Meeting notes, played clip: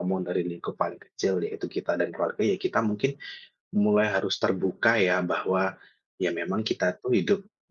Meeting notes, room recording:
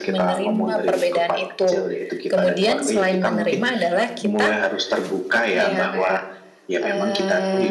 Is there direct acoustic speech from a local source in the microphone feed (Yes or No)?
Yes